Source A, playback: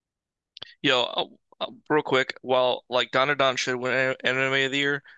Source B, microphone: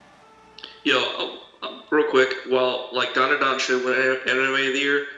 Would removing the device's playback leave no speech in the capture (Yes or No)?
Yes